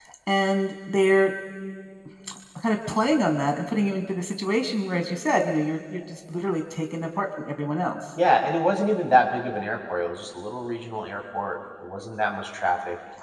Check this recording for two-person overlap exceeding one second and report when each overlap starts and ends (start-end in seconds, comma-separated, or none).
none